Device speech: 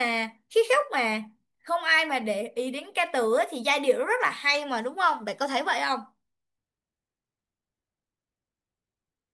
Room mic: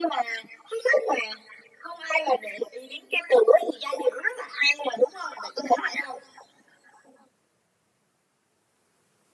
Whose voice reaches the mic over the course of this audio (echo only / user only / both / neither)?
echo only